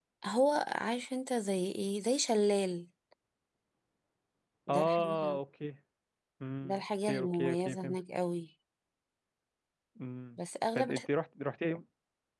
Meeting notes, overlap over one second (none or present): present